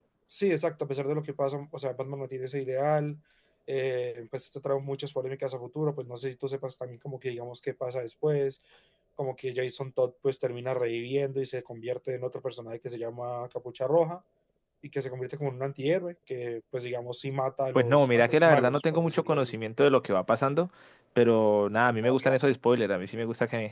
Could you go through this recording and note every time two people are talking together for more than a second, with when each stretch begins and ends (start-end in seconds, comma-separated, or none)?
17.7-19.6